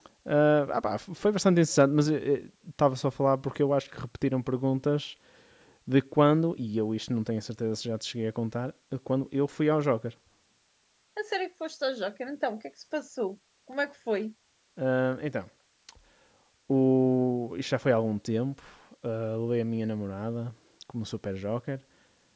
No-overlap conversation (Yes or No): Yes